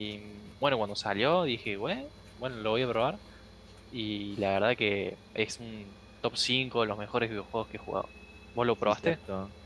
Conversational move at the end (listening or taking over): taking over